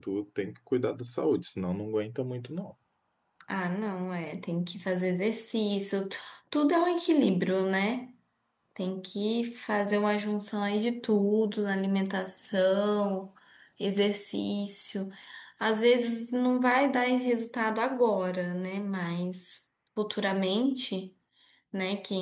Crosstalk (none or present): none